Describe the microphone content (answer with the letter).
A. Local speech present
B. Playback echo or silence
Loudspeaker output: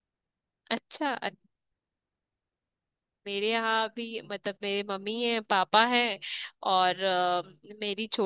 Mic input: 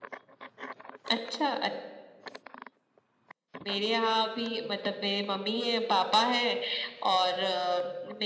B